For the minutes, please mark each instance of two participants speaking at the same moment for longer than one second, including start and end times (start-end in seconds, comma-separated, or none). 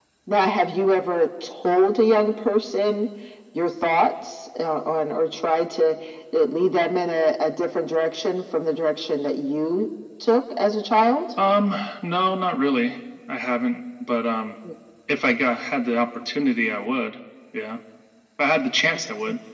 none